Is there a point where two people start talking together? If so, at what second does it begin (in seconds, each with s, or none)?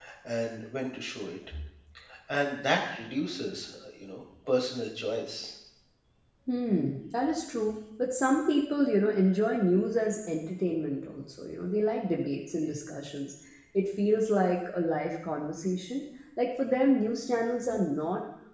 none